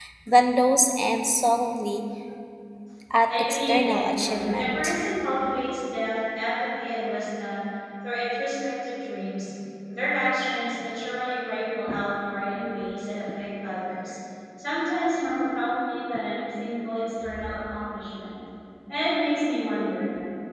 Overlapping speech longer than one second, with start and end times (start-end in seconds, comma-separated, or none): 3.3-5.0